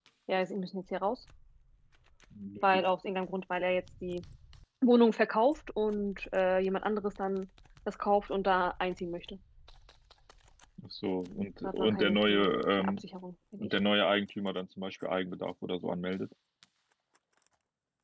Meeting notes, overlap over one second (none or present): present